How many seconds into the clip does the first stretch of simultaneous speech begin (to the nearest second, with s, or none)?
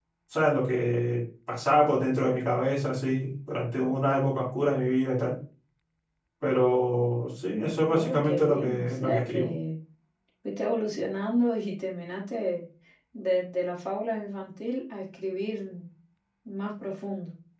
8 s